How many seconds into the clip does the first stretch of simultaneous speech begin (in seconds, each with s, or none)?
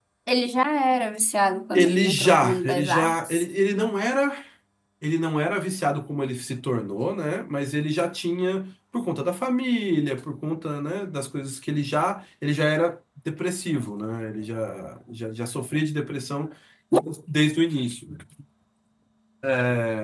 1.7 s